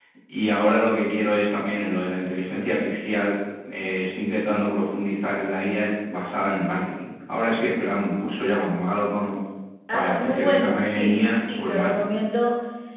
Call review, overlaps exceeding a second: present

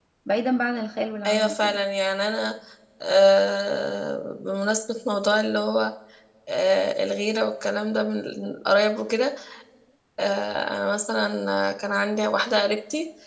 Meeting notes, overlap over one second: none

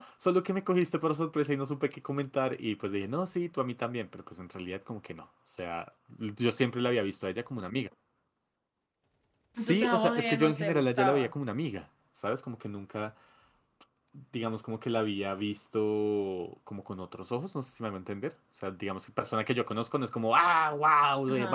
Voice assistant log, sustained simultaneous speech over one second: present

